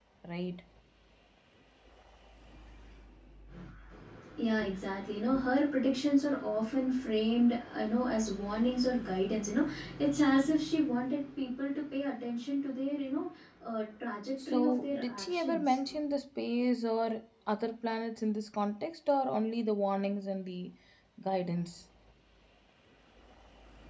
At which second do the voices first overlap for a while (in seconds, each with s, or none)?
14.4 s